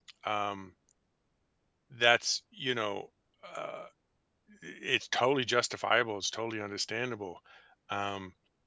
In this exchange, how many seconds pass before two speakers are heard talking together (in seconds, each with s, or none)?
none